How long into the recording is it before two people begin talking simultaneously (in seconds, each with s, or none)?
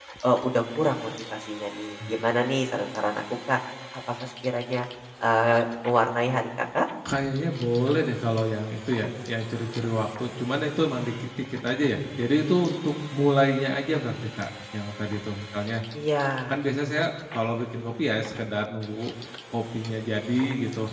none